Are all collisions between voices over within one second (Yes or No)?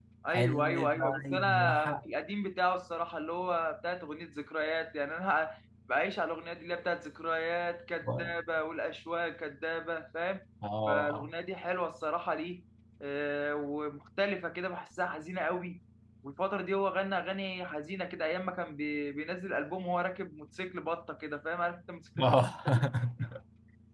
No